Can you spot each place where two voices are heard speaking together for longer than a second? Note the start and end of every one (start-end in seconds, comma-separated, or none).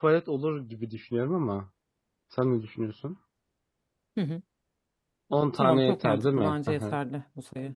5.6-7.0